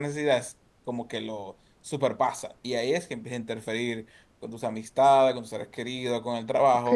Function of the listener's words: taking over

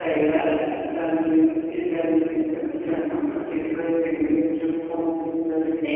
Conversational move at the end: taking over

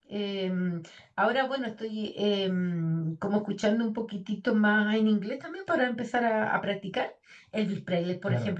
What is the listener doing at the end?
listening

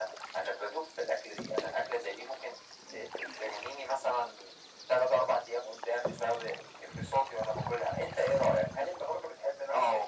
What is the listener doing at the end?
taking over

